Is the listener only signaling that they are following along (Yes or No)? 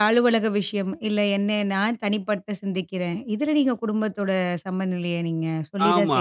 No